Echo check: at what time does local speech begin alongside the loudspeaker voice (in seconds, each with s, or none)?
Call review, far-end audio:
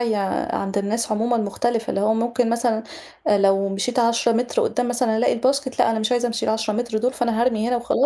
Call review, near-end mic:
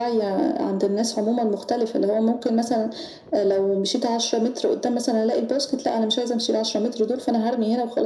none